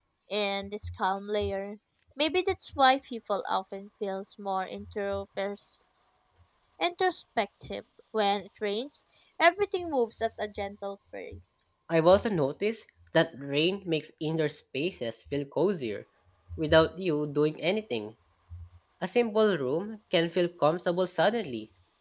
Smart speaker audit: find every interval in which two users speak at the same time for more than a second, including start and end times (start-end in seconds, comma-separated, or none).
none